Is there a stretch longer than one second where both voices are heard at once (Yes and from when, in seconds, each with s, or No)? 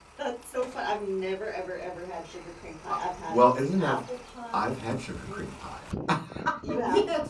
No